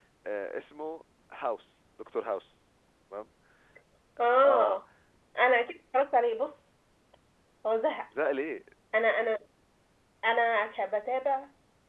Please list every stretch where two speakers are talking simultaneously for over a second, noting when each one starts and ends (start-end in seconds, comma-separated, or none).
none